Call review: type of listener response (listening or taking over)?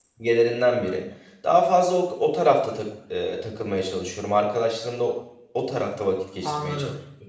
taking over